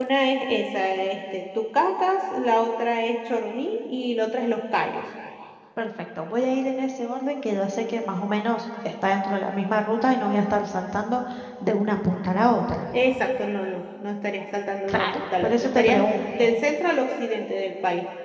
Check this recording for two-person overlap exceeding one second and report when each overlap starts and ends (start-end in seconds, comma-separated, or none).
14.9-16.2